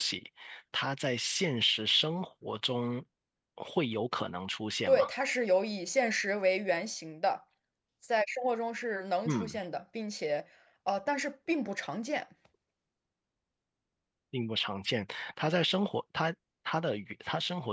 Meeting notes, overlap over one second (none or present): none